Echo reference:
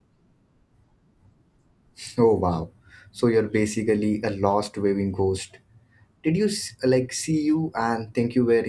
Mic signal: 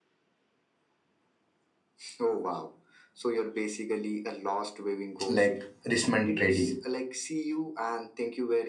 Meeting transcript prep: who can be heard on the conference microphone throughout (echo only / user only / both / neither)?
both